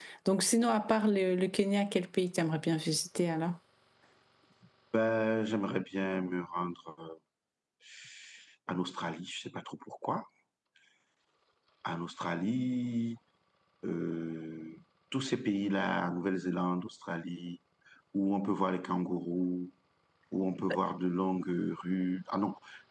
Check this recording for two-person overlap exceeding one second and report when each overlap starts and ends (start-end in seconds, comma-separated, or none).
none